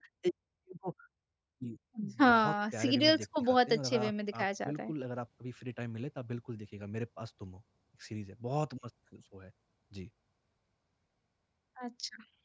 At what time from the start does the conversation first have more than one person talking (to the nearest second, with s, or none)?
2 s